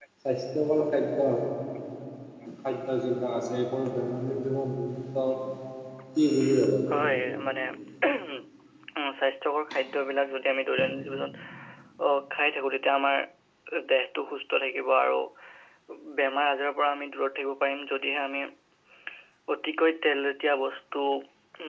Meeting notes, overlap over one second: none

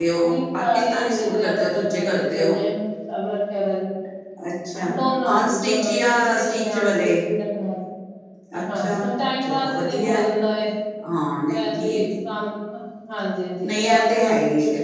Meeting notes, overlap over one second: present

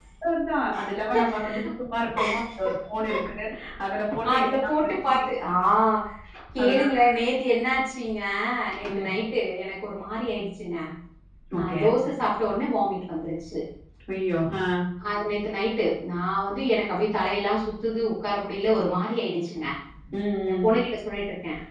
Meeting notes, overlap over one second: none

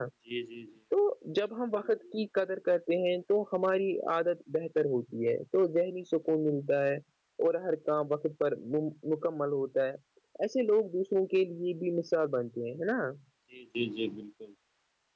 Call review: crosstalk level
none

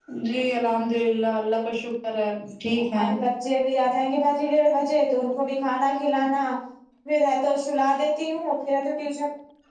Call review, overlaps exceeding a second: none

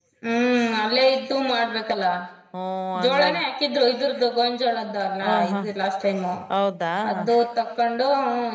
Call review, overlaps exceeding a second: none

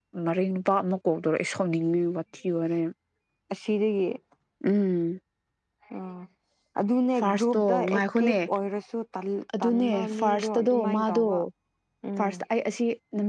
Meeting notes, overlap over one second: present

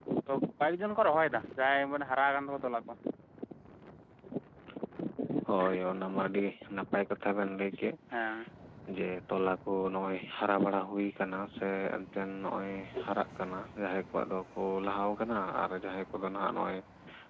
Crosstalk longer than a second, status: none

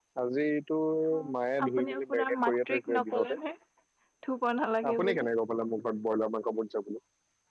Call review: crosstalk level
present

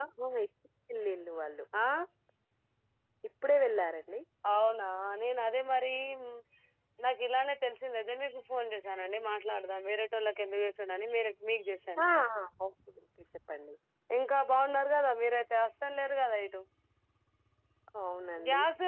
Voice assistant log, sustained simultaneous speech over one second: none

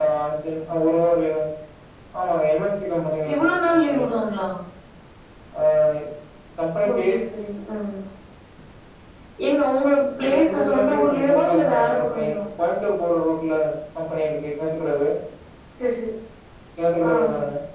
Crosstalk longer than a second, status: present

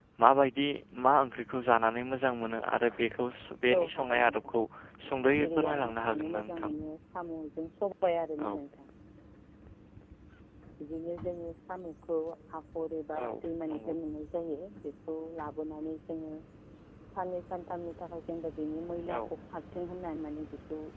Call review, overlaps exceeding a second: present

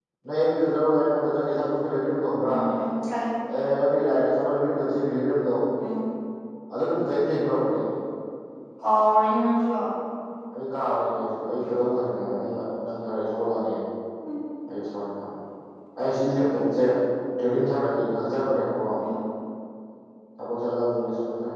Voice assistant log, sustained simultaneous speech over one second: none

